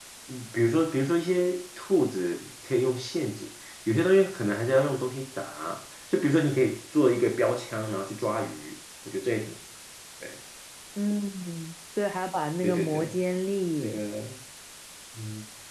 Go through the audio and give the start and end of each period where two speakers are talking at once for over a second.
none

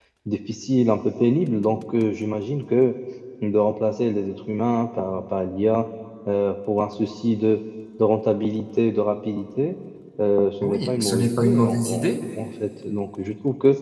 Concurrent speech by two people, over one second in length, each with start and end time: 10.6-12.1

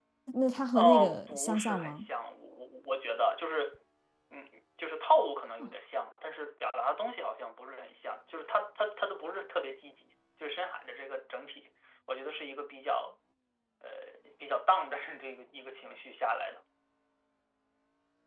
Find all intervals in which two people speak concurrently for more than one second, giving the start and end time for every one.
0.7-2.0

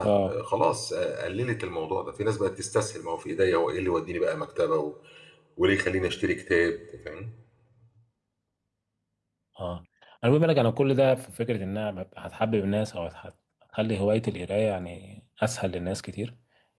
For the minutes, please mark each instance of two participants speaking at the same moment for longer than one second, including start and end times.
none

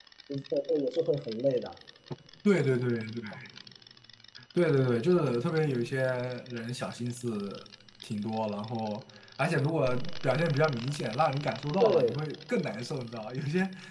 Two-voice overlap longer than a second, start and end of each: none

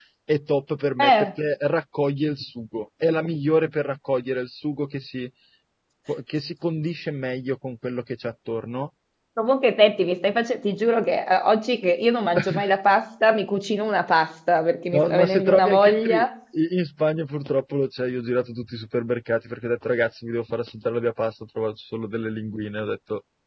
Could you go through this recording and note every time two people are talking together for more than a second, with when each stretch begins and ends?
14.9-16.1

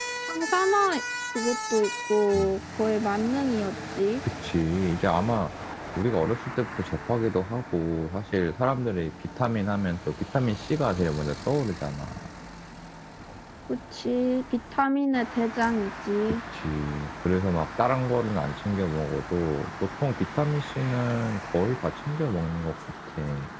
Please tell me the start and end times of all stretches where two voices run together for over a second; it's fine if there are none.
none

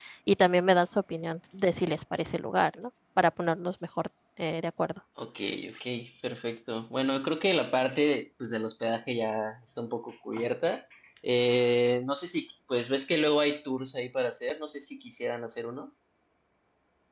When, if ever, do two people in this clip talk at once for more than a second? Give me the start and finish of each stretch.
none

